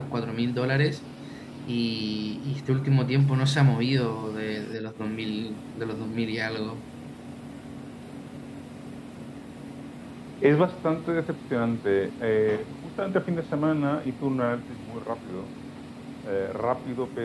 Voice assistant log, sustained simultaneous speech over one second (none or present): none